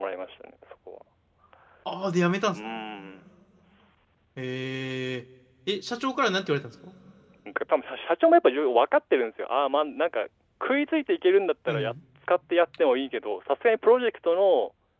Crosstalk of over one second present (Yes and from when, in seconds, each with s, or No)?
No